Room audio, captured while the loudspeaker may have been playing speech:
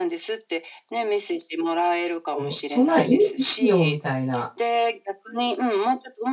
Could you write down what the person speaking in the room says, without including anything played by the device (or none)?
そ、むそんな、意味よ、みたいな。